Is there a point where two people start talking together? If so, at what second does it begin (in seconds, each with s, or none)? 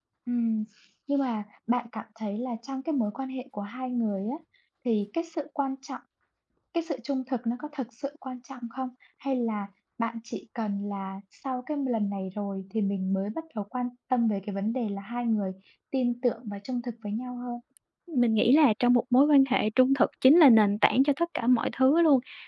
none